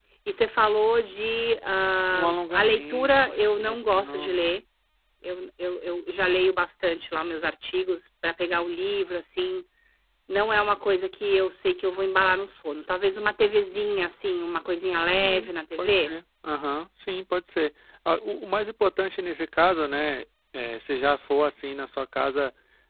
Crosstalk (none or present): present